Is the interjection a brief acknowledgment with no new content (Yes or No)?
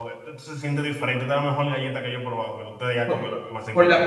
No